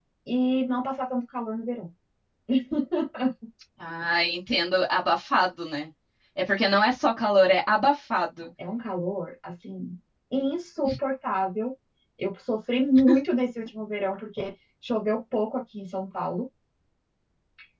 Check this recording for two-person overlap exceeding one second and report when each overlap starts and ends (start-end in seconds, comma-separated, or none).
none